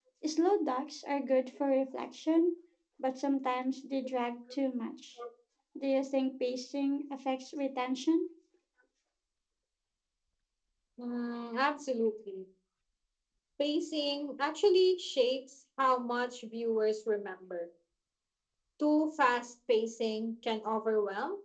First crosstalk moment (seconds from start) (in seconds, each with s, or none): none